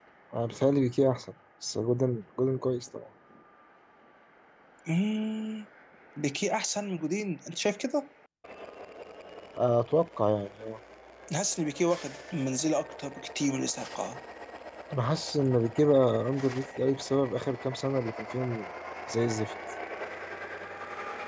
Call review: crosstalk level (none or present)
none